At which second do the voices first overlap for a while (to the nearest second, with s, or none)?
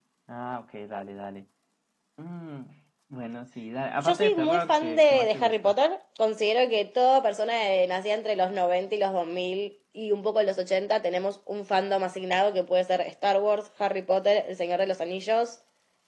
4 s